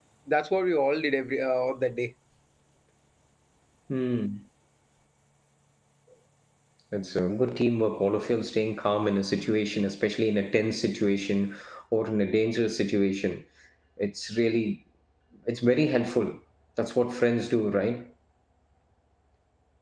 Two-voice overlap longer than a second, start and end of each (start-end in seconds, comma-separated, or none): none